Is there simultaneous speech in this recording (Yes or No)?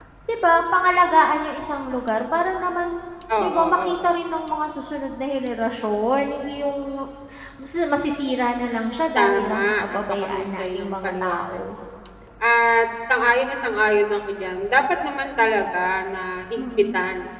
Yes